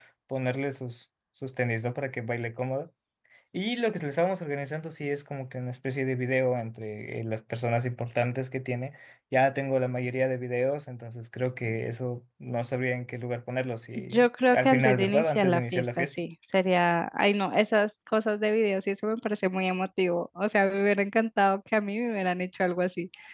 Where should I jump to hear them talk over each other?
13.9 s

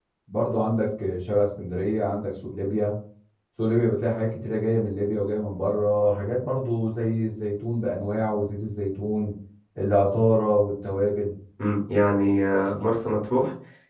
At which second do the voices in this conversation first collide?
none

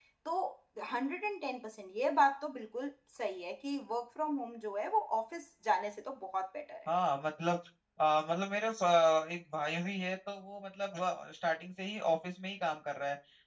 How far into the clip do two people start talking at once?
none

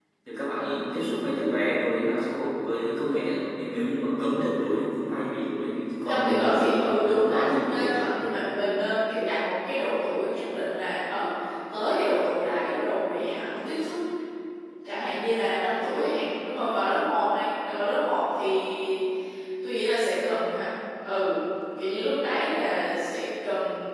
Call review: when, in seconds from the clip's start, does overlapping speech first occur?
6.1 s

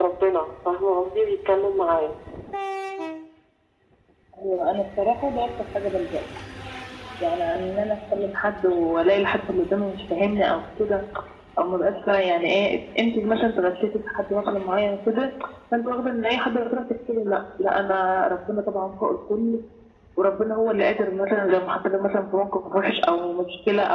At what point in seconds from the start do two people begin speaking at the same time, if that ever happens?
none

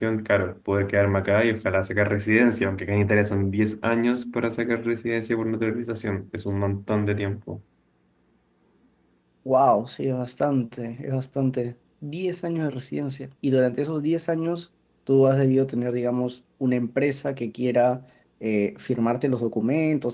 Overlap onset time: none

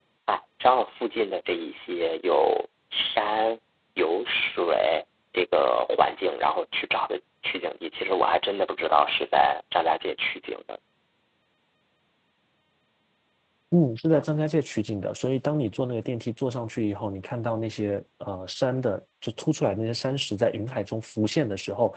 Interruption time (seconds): none

